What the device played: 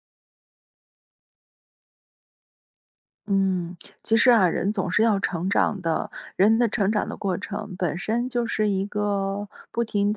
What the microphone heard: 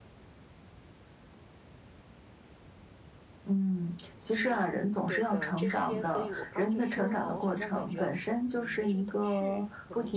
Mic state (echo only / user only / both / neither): both